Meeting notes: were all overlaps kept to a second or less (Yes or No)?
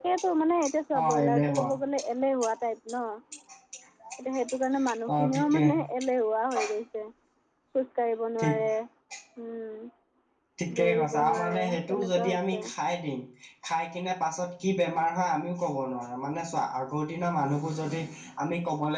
No